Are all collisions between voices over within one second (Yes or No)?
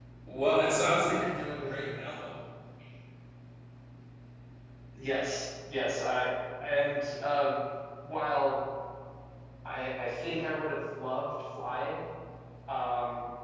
Yes